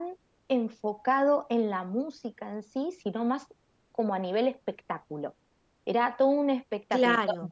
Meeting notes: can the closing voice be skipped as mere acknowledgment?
Yes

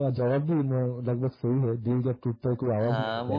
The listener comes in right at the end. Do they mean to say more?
Yes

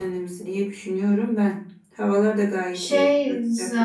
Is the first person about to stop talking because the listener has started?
Yes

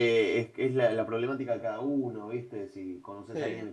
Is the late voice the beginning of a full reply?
No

